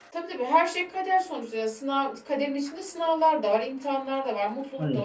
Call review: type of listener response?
listening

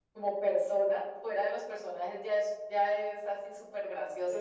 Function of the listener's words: taking over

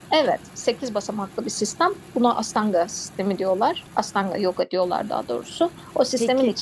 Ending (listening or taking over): listening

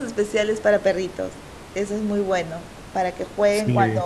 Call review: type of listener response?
listening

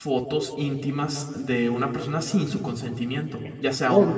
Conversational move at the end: taking over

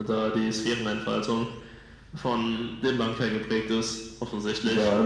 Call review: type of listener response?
taking over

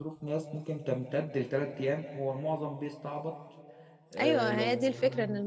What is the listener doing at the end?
taking over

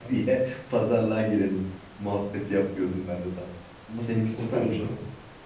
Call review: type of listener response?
taking over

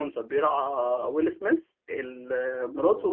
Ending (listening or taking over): listening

